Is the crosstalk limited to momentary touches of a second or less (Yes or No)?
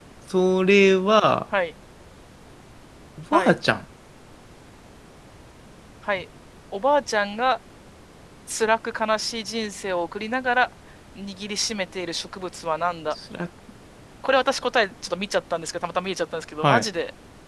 Yes